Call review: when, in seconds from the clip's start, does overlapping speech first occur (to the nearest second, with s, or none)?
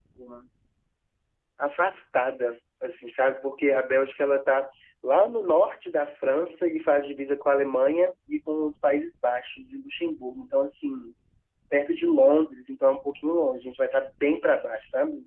none